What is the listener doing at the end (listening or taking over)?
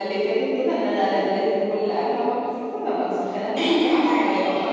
taking over